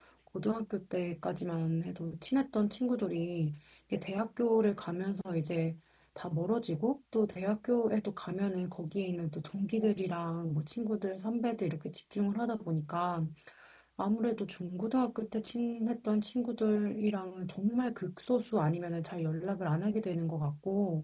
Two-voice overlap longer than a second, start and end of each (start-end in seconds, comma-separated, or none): none